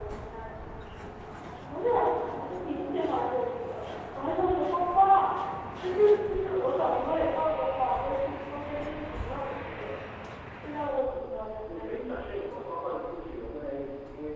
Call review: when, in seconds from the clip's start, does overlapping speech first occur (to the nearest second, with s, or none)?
12 s